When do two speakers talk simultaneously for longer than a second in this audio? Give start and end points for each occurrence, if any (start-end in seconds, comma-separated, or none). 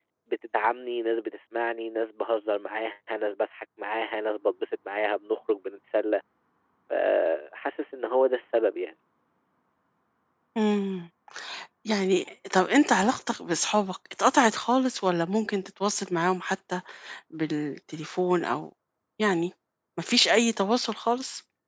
none